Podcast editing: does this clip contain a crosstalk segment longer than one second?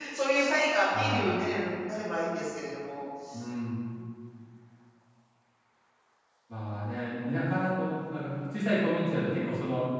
No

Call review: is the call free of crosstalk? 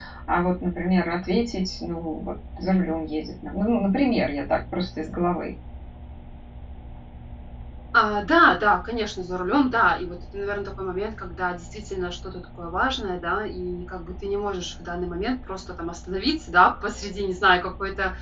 Yes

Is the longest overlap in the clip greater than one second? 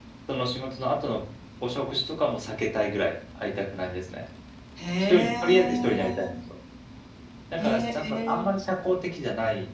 Yes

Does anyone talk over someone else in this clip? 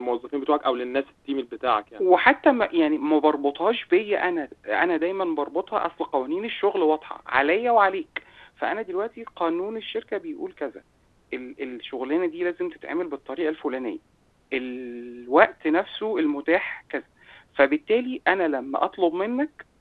No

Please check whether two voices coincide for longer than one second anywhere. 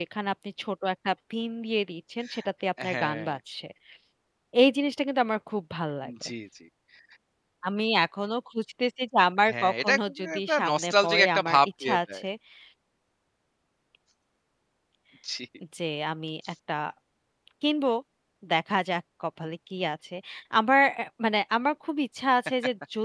Yes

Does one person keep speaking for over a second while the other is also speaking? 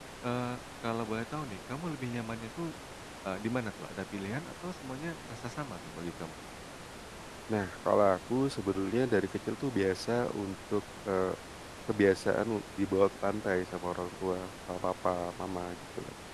No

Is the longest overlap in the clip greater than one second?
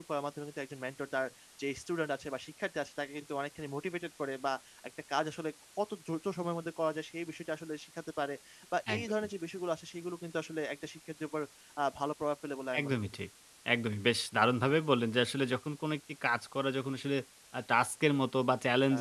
No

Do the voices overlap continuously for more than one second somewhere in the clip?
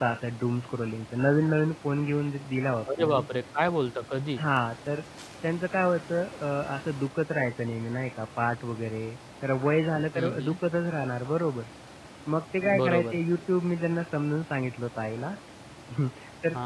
No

